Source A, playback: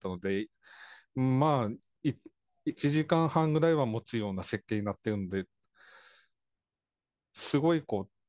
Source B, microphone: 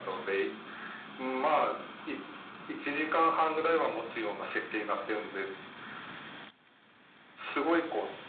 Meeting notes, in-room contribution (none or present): none